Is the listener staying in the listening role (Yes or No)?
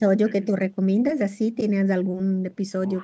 No